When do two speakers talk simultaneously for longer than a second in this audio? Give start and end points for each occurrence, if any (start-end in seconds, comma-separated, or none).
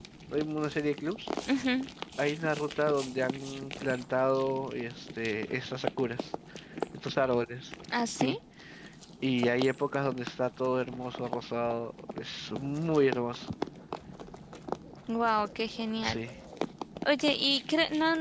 none